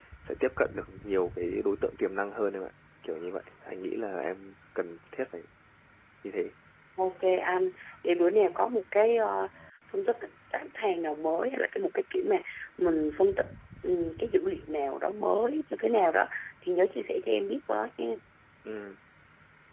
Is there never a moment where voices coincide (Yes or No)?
Yes